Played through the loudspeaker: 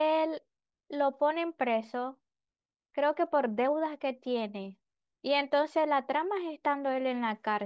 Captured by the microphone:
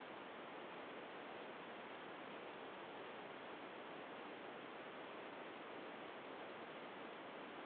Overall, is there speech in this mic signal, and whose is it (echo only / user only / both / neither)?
neither